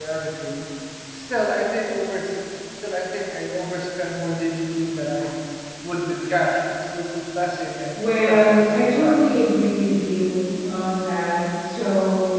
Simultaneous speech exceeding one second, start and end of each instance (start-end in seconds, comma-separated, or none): 8.0-9.3